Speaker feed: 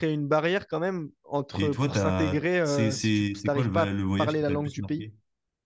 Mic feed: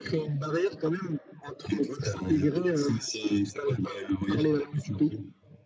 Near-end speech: none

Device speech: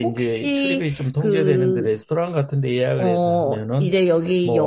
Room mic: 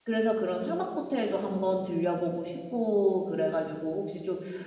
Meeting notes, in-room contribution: present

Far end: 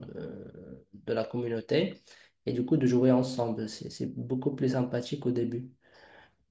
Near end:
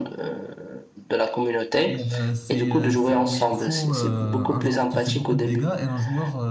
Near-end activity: present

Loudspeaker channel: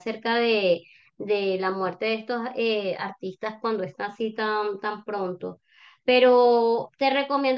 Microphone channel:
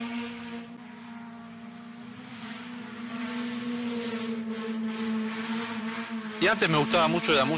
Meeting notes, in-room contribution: present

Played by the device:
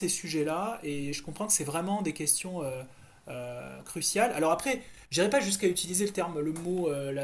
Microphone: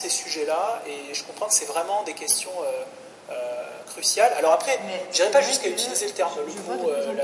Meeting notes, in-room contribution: present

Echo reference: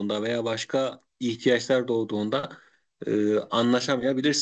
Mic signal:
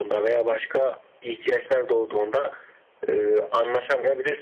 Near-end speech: none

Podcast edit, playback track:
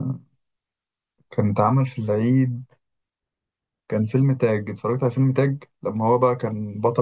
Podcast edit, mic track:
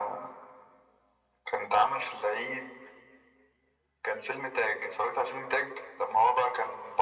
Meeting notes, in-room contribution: none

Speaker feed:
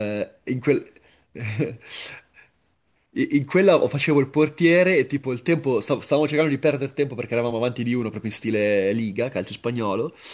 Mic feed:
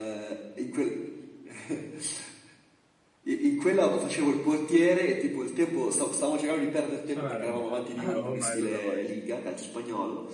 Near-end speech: present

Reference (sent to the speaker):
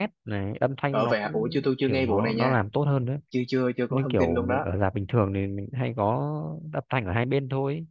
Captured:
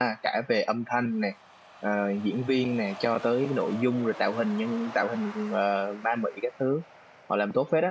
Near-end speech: present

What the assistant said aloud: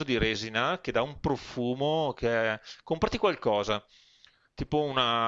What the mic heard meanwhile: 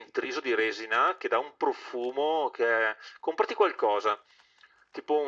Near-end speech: none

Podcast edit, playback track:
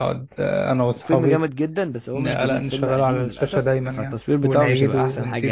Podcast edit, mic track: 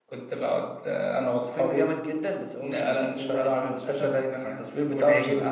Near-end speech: present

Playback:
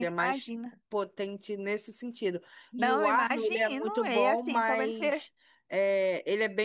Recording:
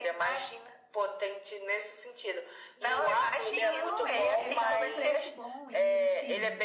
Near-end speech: present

